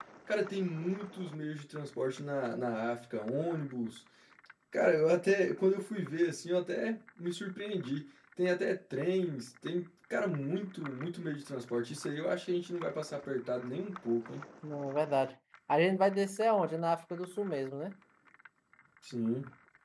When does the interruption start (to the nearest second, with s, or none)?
none